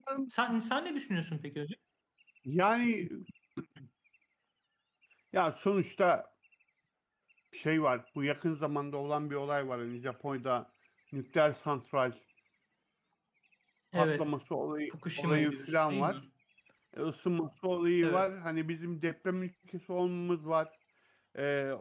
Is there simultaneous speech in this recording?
Yes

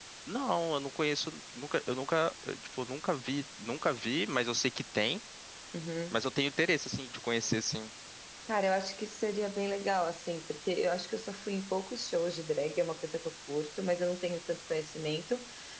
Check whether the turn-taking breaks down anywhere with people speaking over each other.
No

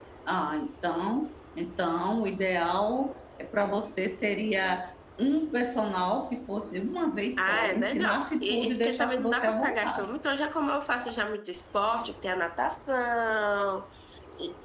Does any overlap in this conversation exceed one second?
Yes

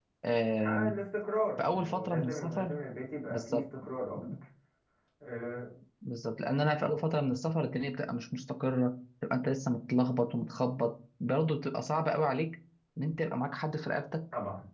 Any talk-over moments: Yes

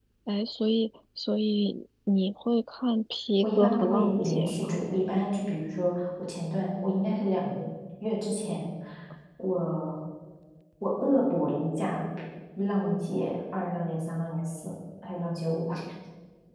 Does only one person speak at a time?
No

